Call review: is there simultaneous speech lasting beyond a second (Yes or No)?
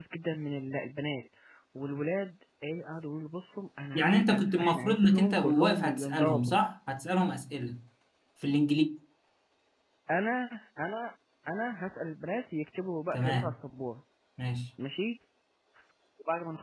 Yes